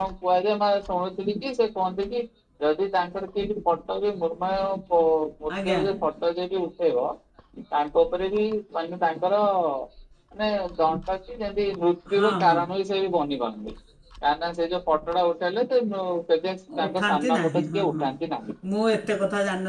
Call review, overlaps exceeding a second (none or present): present